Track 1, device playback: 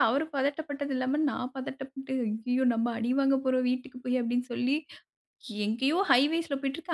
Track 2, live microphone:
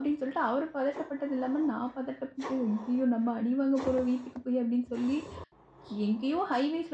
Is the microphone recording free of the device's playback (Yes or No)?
No